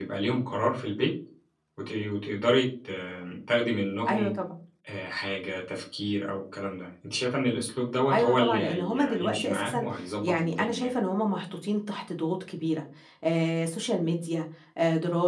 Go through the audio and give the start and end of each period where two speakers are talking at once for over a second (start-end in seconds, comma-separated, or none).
8.1-10.9